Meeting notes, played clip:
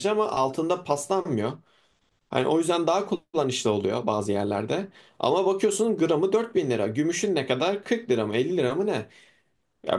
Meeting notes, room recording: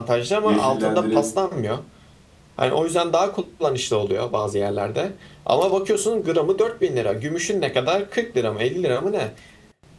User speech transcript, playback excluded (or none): yeşillendirip